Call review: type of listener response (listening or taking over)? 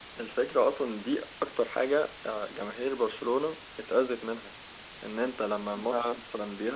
listening